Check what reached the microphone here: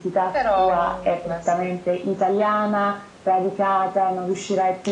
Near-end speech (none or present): present